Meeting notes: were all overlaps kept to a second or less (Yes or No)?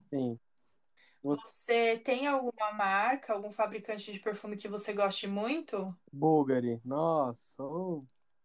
Yes